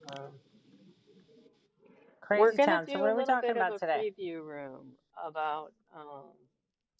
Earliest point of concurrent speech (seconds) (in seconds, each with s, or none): 2.3 s